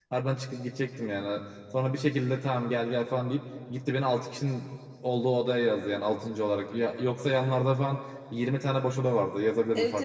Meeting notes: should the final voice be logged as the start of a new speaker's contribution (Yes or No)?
Yes